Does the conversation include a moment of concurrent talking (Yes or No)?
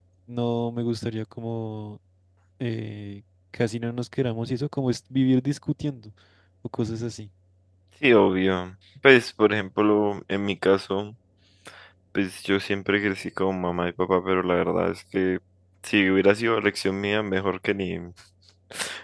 No